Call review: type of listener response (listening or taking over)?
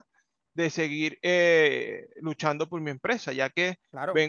listening